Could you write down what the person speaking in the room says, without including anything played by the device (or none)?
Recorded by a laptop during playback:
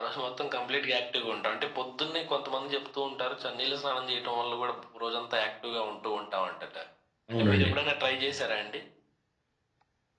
అవునండి.